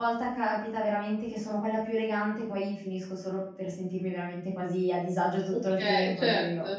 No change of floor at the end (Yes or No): No